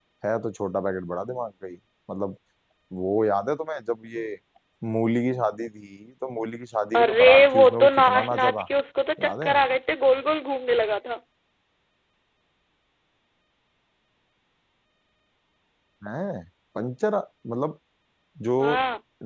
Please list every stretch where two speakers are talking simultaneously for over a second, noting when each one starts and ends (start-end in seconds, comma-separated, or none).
7.0-8.6